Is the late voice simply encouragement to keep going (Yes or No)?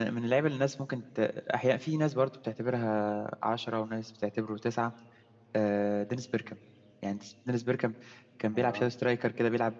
Yes